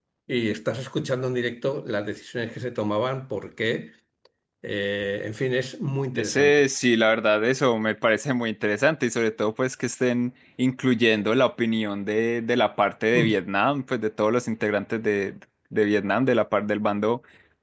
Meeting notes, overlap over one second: none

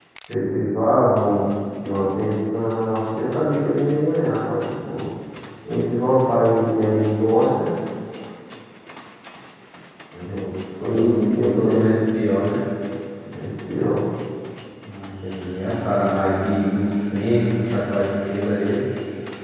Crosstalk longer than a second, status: present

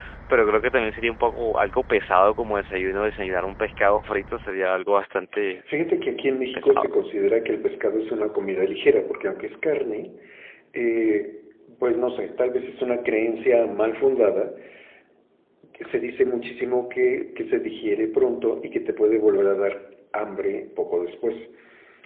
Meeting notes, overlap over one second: none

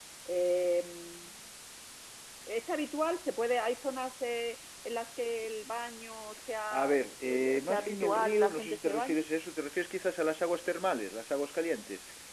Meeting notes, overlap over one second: present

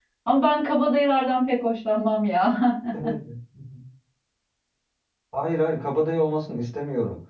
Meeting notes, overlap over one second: none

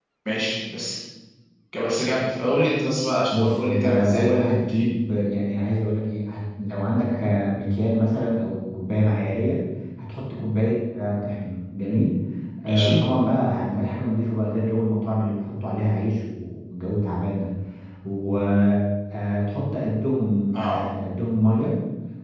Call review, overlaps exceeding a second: present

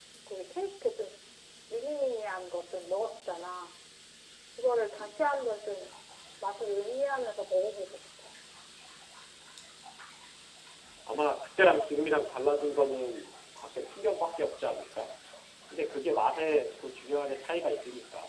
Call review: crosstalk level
none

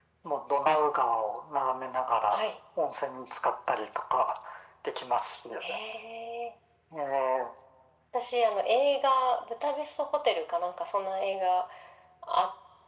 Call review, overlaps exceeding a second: none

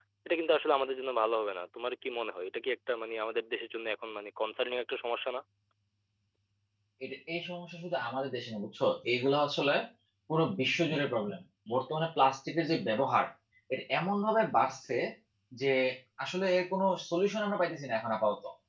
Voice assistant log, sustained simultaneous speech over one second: none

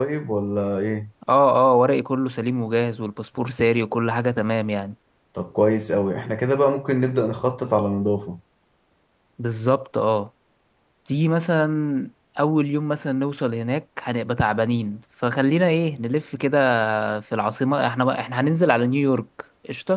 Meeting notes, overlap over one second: none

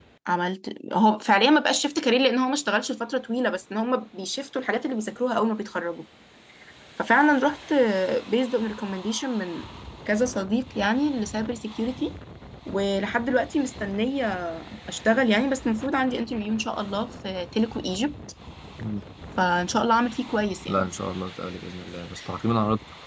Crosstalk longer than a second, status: none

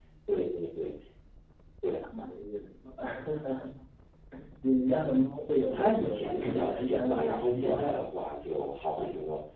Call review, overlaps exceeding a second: present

